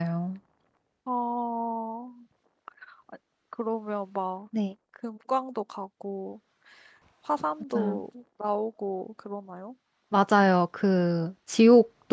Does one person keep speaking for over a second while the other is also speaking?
No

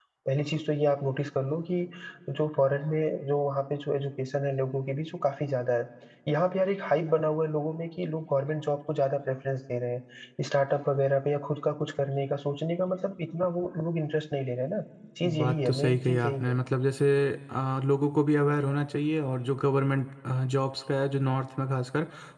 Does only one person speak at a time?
No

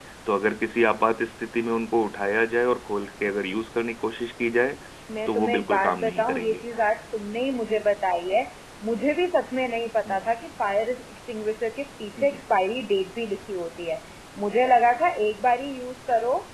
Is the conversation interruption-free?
No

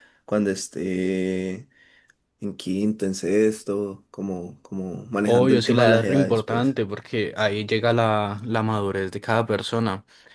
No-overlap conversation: No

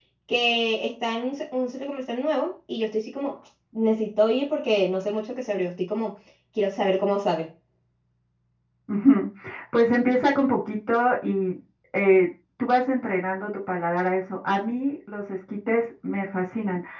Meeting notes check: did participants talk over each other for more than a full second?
No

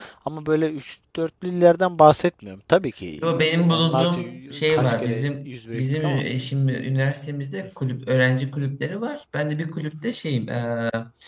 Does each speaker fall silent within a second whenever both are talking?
No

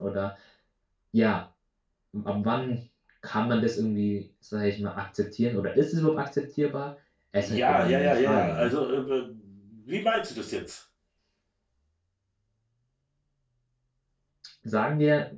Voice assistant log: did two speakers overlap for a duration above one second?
Yes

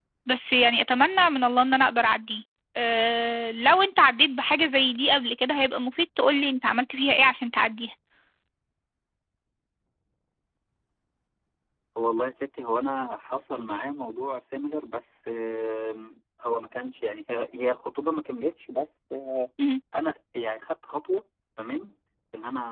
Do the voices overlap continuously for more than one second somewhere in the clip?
No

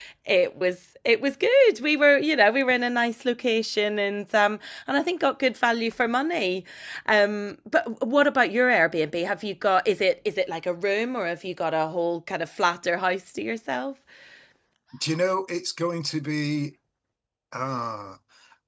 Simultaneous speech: No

